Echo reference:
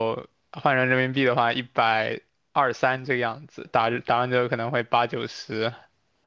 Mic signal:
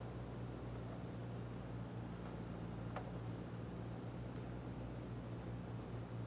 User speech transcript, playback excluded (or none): none